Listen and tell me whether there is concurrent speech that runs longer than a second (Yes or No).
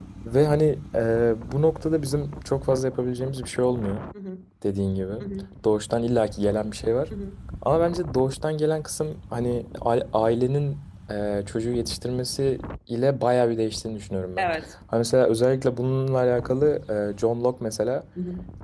No